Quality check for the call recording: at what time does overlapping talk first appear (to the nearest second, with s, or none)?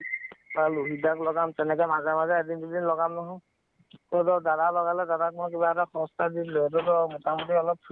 none